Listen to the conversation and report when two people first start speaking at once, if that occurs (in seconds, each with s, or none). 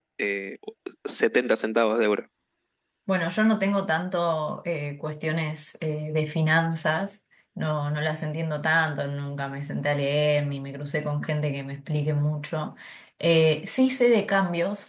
none